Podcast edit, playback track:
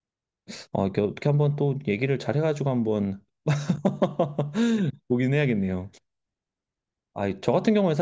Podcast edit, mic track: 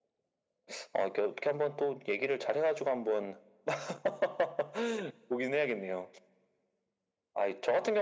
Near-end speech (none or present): none